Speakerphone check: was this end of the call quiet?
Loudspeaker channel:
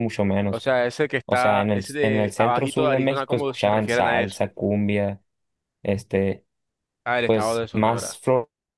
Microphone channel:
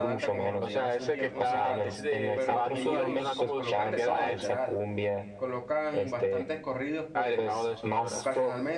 No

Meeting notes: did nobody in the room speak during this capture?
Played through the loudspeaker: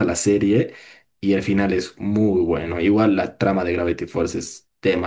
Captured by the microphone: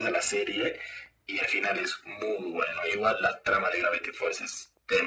Yes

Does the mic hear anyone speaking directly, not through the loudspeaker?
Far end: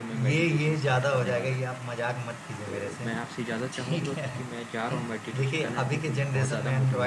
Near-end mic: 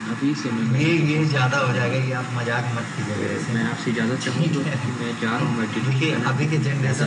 No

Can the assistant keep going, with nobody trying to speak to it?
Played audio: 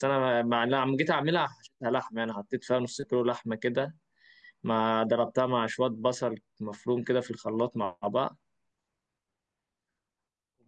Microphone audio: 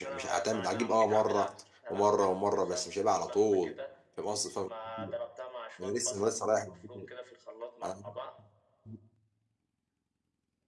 No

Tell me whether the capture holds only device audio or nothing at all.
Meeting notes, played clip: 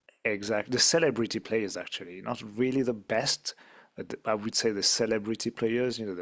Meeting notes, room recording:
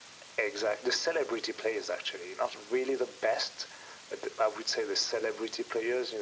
Yes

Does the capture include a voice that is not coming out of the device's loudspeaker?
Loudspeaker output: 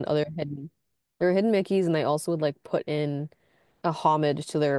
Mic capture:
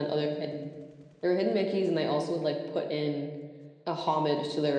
No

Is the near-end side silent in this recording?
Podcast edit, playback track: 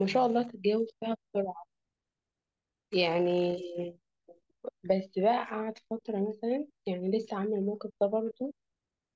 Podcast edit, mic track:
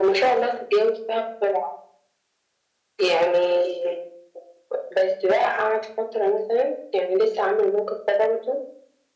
Yes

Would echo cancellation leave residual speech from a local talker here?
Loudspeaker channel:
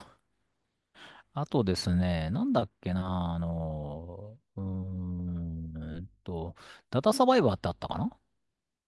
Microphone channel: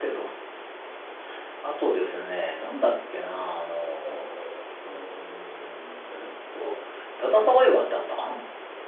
No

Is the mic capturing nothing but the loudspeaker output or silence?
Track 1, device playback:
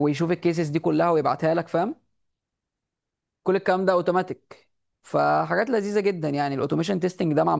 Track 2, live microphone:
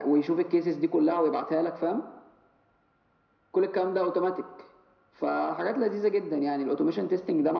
Yes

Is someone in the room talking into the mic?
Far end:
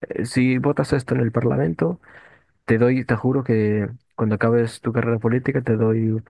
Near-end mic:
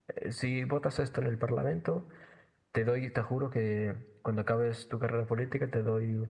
No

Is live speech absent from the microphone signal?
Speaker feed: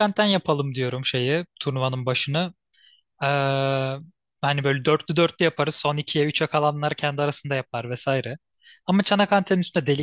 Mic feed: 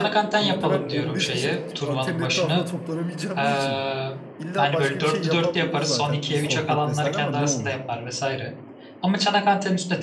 No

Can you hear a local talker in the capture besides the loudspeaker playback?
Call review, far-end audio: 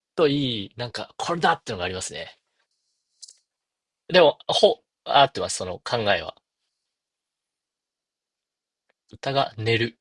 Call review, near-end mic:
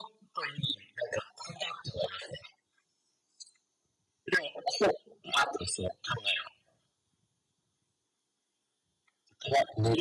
No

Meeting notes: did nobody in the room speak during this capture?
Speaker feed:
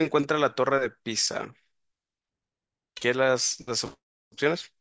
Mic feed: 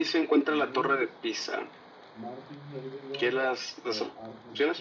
No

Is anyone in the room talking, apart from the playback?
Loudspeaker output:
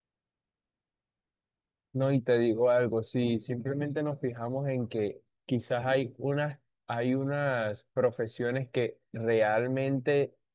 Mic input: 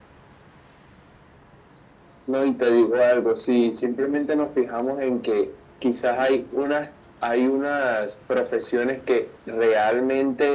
No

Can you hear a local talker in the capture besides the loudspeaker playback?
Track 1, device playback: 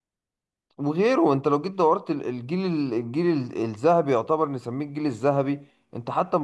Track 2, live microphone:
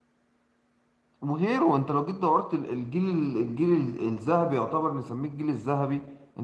No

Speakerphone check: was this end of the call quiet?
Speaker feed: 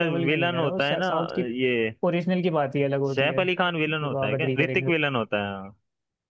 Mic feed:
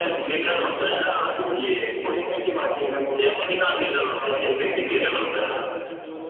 No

